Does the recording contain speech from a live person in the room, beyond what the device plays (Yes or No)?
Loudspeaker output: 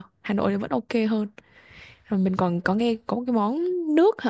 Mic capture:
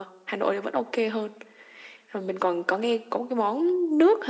No